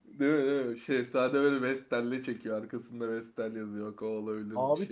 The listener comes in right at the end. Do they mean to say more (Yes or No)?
Yes